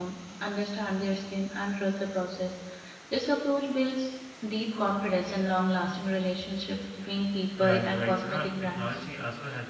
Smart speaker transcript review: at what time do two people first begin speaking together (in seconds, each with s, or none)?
7.6 s